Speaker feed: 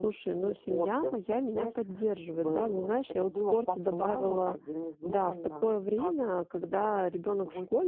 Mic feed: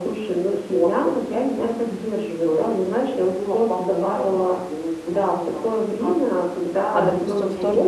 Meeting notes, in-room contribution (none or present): present